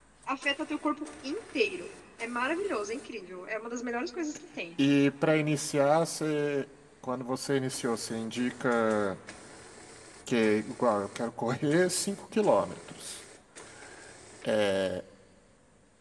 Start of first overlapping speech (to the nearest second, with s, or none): none